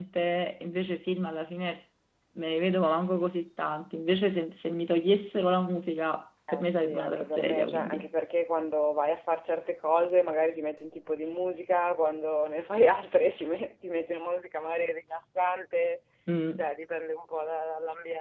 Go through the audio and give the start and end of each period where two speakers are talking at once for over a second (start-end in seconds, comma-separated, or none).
6.5-8.1